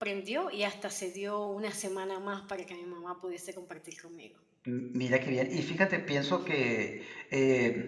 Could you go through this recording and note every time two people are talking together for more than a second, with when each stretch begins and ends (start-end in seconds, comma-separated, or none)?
none